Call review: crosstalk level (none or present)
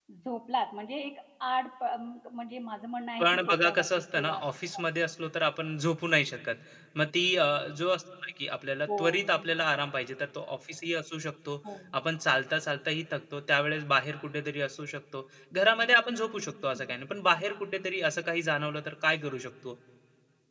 present